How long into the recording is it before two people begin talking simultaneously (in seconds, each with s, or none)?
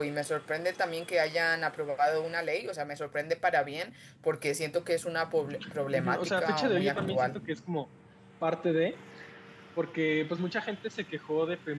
5.9 s